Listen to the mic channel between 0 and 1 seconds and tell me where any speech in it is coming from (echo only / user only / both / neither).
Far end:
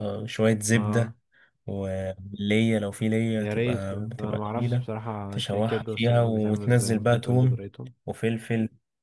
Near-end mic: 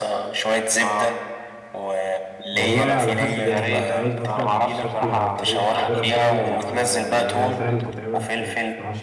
echo only